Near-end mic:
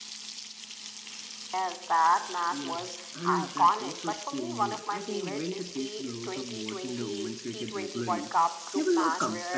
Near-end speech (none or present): present